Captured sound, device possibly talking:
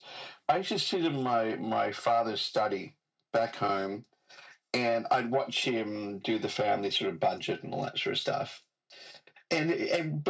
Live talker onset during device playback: none

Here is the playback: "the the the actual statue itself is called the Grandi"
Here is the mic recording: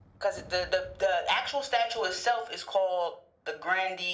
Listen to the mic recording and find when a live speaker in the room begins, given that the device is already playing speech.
none

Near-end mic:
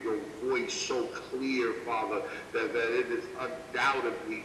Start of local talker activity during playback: none

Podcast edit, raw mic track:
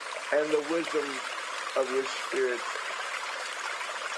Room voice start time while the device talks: 0.3 s

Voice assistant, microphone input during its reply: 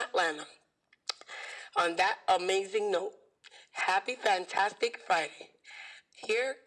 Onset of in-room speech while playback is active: none

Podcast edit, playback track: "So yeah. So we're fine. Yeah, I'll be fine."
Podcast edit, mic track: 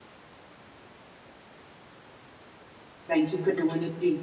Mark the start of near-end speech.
3.1 s

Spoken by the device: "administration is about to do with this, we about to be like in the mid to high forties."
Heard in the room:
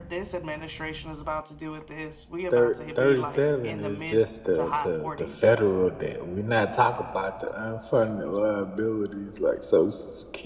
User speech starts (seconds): 2.5 s

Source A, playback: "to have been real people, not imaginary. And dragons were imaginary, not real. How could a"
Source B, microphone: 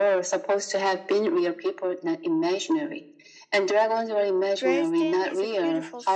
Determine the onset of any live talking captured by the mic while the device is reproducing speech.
4.5 s

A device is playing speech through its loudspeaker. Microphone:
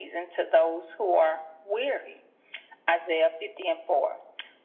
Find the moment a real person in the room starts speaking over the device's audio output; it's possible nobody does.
none

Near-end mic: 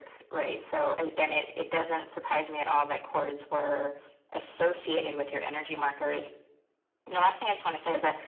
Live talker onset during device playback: none

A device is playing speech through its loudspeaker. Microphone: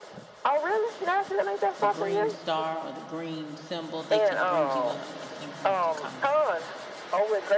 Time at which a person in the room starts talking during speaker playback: 1.8 s

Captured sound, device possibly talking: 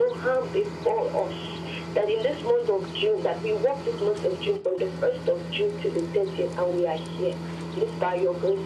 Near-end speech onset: none

